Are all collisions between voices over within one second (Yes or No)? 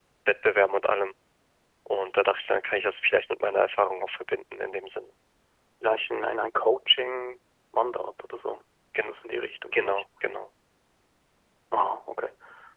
Yes